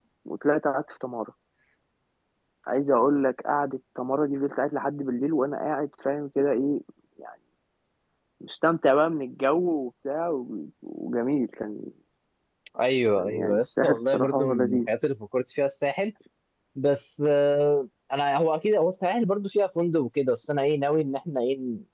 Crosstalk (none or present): present